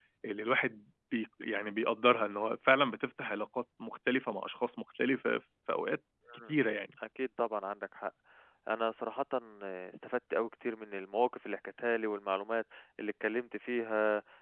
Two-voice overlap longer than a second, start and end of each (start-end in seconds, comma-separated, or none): none